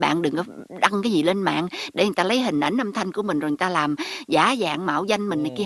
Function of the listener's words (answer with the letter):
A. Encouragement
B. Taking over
B